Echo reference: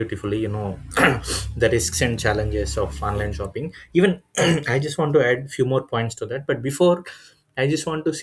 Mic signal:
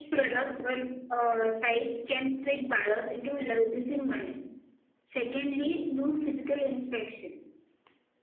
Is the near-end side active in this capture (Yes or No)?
Yes